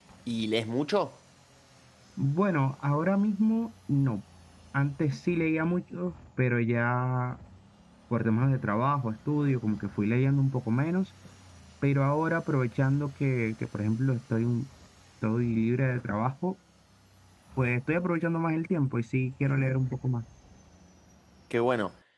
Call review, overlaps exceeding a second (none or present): none